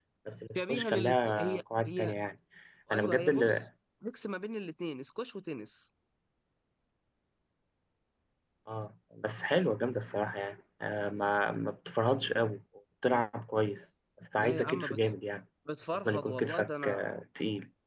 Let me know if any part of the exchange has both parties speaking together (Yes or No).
Yes